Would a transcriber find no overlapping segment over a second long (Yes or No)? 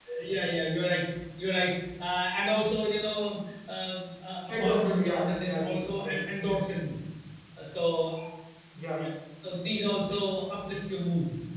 No